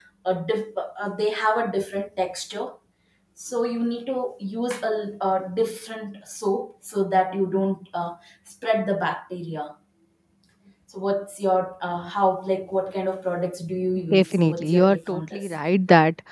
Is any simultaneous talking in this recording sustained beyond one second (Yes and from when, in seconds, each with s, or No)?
Yes, from 14.0 s